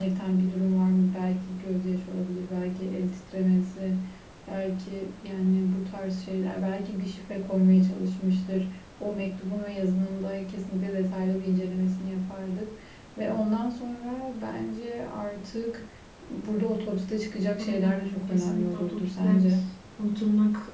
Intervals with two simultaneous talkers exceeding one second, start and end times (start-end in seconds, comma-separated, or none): 17.6-19.4